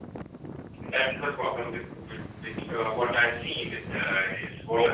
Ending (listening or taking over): listening